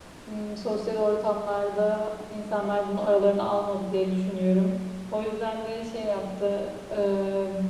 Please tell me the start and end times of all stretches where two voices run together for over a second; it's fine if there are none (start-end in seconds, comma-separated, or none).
none